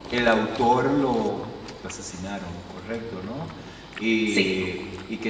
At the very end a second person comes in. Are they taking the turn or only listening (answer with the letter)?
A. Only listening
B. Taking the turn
A